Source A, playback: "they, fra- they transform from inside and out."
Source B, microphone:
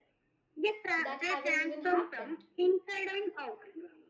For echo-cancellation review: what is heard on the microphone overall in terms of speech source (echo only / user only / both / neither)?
both